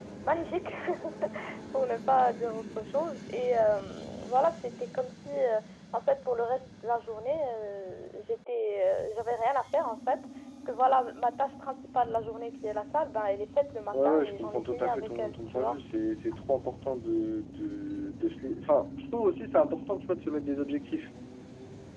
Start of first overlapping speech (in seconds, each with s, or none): 13.9 s